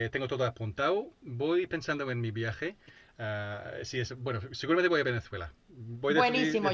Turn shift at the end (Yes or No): Yes